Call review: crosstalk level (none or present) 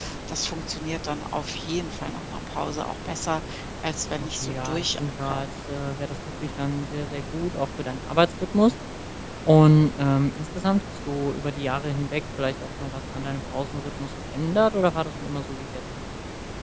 present